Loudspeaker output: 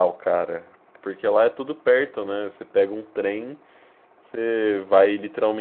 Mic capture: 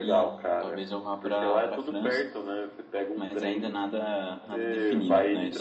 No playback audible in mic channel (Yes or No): No